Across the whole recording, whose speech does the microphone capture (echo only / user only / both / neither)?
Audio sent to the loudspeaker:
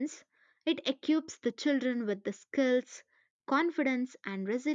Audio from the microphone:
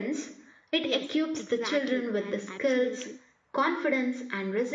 both